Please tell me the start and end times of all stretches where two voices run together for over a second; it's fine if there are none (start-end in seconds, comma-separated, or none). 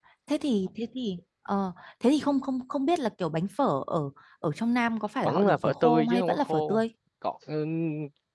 5.2-6.8